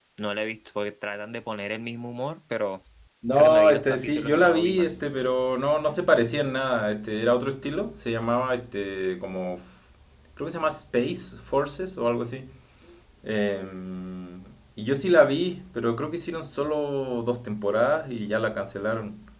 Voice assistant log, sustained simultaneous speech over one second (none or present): present